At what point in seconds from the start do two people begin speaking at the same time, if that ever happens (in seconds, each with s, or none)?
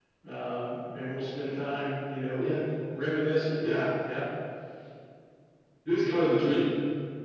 none